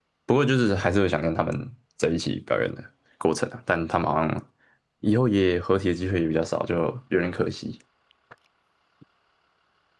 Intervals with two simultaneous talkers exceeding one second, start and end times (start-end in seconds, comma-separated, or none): none